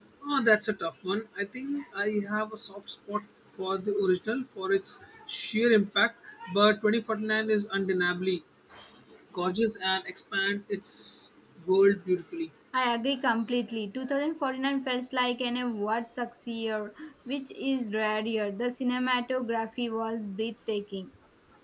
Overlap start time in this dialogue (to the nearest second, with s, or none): none